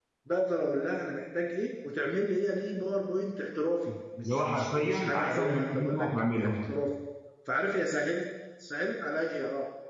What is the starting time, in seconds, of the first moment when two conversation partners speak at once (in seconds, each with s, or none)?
4.2 s